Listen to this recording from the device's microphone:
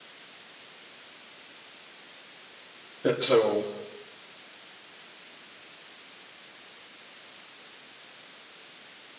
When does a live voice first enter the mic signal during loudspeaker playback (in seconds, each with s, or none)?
3.0 s